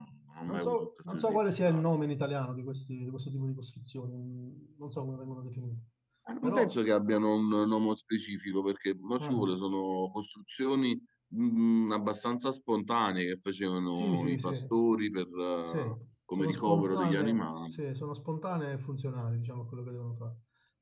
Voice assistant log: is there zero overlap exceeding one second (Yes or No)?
No